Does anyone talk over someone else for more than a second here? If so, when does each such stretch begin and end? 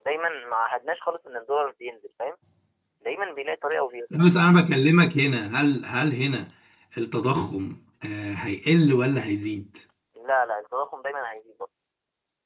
none

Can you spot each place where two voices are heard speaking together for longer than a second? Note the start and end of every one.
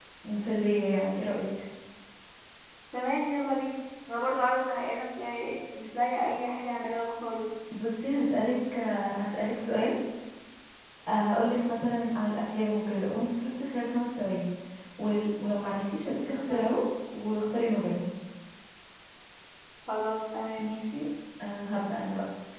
none

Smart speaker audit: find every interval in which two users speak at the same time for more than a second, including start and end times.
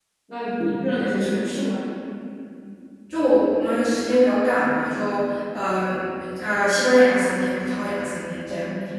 none

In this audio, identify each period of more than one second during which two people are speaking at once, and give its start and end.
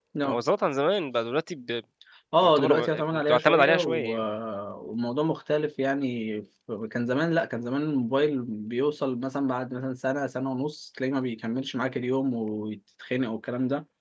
2.4-4.0

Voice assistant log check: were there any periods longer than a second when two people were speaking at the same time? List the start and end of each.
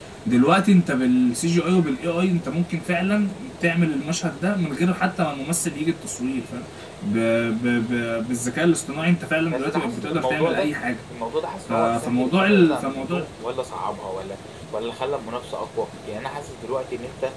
9.5-10.7, 11.7-13.2

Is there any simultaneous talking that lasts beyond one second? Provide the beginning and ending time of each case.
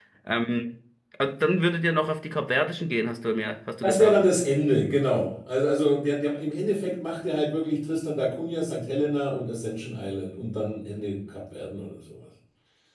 none

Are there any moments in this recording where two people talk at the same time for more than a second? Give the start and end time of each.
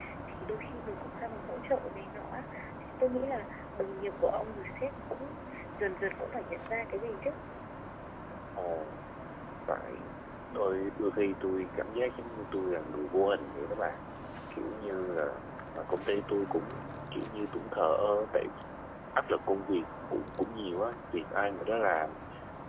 none

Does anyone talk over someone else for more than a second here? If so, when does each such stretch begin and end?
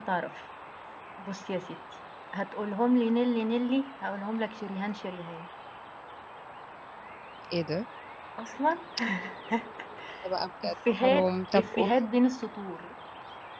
10.6-11.9

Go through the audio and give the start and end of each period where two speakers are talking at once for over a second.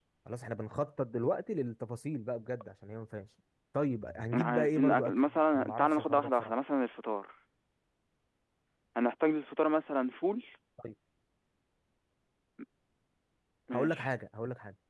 4.3-6.5

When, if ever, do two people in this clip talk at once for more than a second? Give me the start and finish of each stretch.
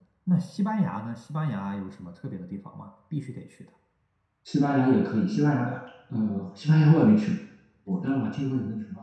none

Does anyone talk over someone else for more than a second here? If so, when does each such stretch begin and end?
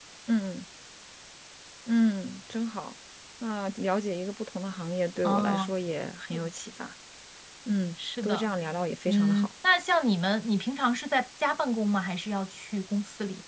none

